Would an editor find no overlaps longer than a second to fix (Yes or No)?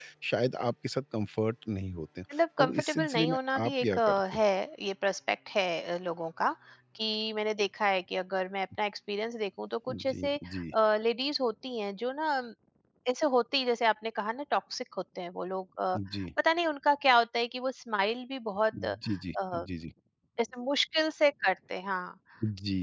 No